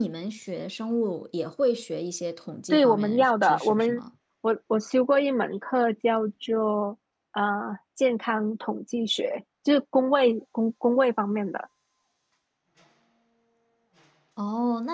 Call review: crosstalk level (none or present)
present